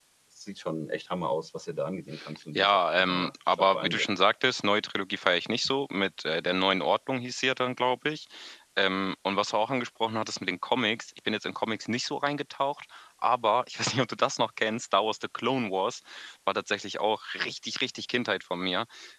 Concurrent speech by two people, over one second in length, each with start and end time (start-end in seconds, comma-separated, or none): 2.6-4.0